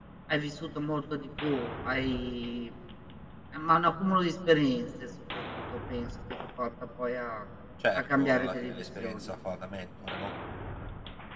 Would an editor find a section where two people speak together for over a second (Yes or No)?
Yes